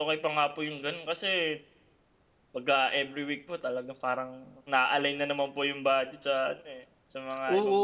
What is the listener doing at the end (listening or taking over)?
taking over